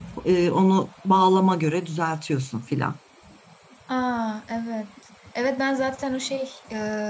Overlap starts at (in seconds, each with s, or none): none